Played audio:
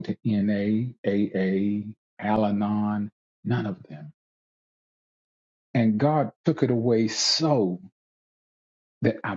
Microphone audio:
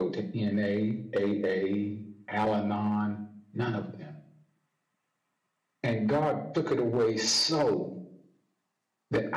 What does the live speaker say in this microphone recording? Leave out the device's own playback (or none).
none